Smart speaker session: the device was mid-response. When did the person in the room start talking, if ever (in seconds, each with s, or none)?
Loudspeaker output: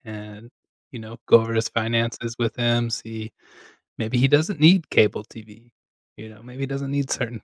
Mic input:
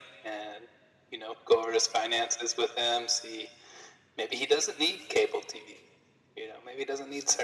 none